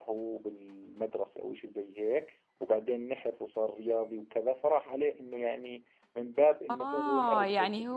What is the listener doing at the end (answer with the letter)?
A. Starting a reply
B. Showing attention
A